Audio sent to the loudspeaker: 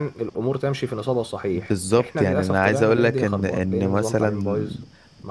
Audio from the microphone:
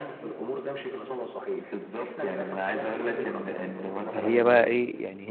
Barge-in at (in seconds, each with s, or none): 4.1 s